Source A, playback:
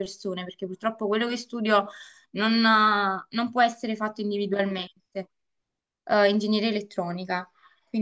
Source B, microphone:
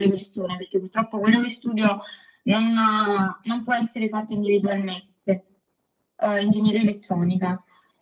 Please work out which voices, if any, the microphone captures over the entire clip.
echo only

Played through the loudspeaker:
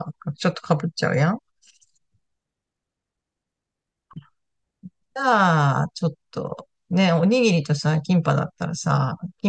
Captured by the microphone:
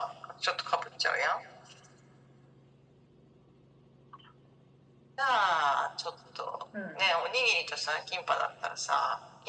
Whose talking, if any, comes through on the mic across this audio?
both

